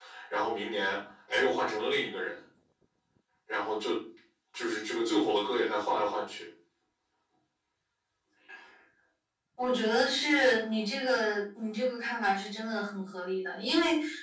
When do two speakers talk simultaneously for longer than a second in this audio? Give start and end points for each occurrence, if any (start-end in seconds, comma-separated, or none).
none